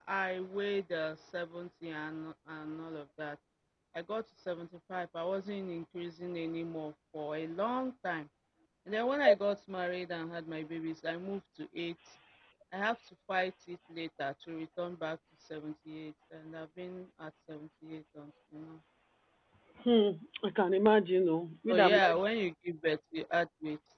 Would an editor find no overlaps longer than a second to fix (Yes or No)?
Yes